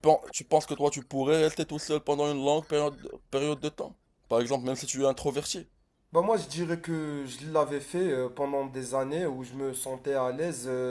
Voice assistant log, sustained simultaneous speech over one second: none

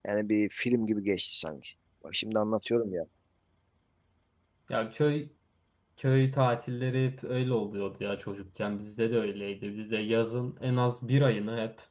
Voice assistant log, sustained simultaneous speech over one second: none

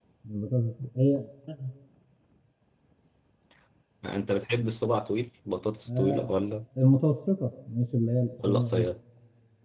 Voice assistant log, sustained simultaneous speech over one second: none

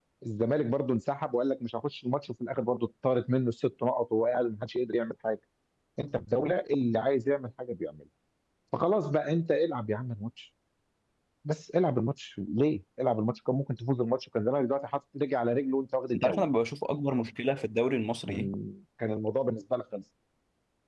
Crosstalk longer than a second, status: none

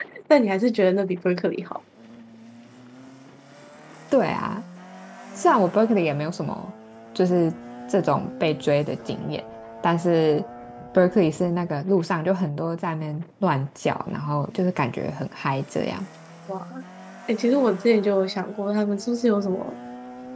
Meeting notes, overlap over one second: none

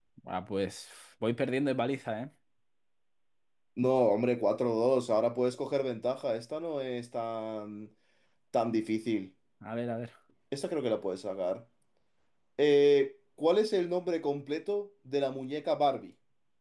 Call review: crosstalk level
none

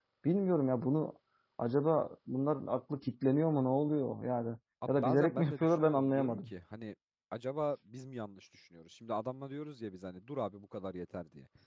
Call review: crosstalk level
present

